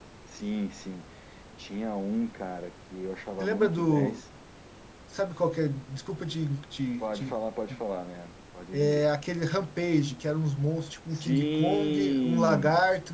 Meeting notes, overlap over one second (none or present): present